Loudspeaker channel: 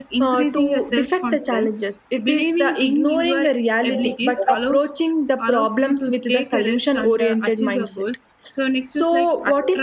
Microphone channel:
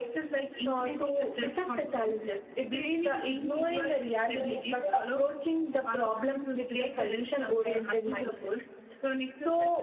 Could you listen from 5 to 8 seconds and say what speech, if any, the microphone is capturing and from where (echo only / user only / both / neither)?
echo only